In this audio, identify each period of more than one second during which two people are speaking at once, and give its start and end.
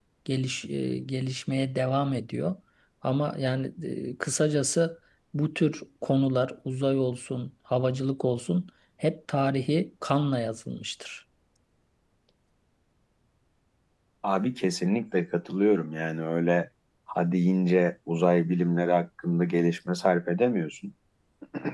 none

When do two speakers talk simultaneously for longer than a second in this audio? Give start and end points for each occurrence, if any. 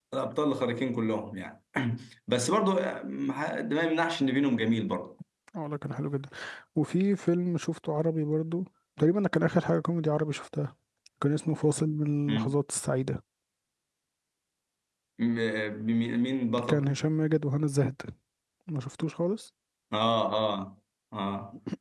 none

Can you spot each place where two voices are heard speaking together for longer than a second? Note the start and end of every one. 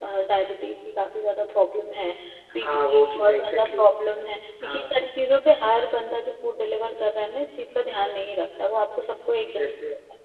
2.6-3.8

